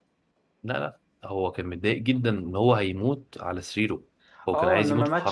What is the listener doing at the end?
taking over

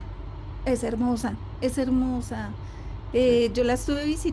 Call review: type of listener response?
listening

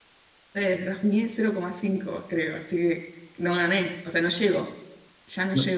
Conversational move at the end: taking over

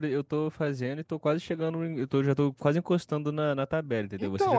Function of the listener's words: taking over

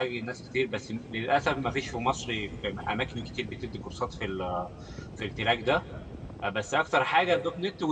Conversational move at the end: listening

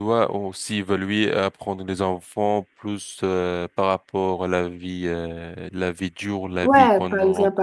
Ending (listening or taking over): taking over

